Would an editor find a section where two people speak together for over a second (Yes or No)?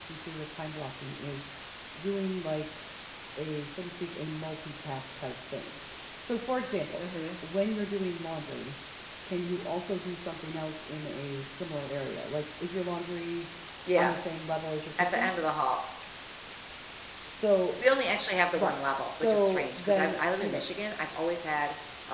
Yes